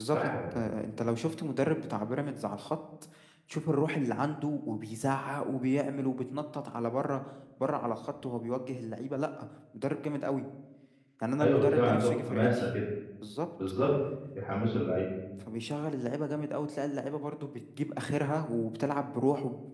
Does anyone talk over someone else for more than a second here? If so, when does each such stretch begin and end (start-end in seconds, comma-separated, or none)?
11.4-12.7